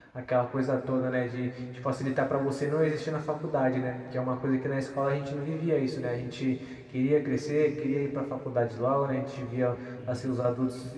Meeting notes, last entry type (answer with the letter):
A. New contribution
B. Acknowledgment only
B